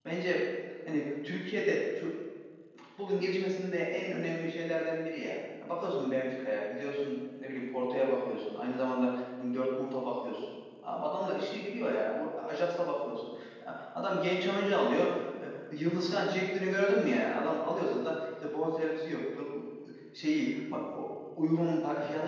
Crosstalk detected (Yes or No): No